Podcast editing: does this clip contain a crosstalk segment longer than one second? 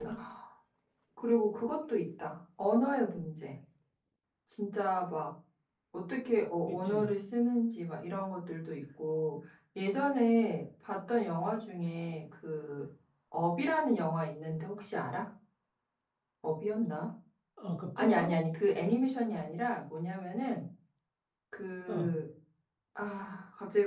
No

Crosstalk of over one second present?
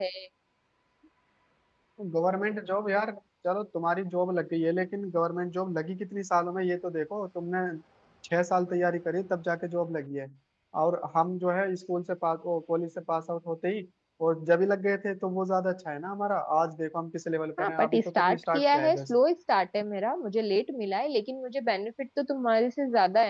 Yes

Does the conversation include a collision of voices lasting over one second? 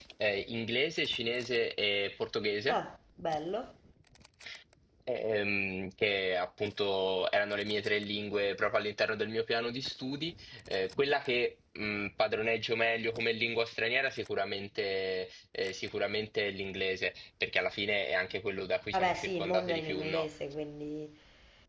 Yes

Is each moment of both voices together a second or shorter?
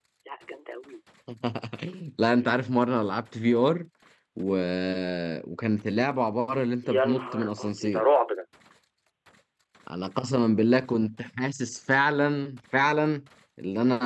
No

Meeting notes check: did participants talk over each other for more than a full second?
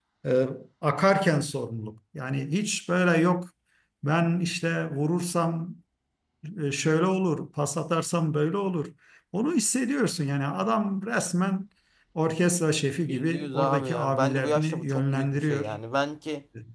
Yes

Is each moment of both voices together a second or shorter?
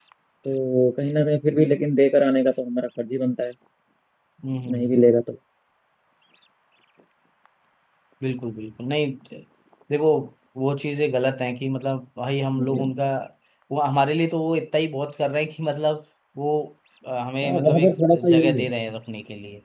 No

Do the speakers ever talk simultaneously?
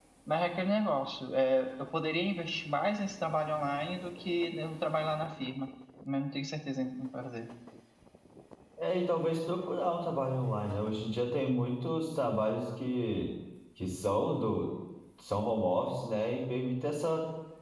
No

